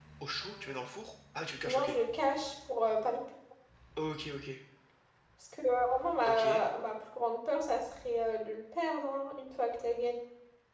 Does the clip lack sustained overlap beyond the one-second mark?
Yes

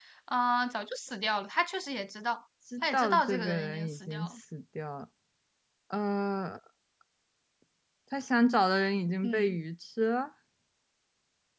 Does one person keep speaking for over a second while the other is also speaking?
Yes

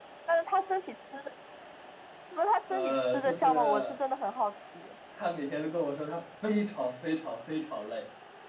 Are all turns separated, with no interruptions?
No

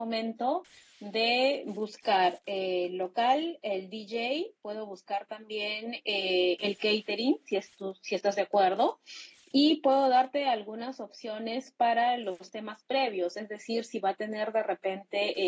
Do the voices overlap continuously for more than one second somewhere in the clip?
No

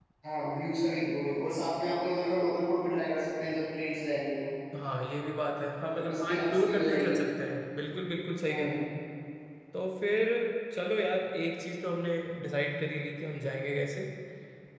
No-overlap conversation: No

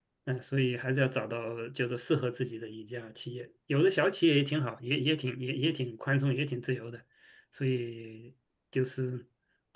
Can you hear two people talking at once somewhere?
No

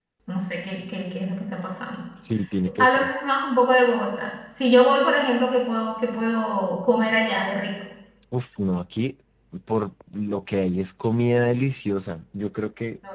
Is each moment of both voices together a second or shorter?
Yes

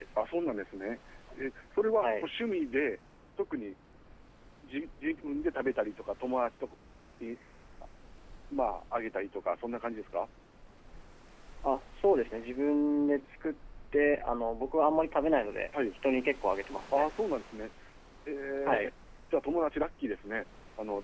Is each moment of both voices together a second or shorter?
Yes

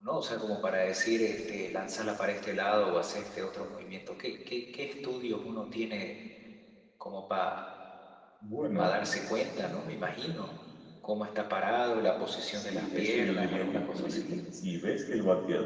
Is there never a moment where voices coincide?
No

